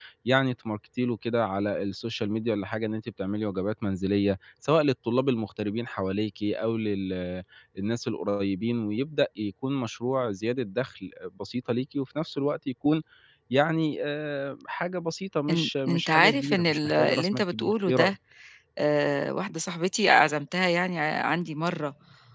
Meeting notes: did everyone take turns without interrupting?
No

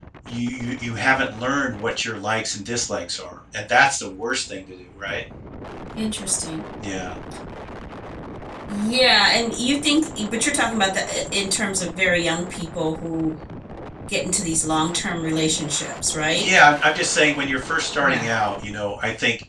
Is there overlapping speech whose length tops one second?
No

